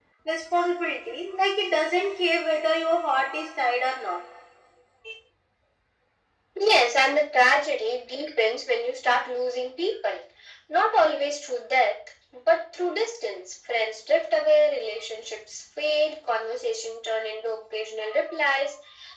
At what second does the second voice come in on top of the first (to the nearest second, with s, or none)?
none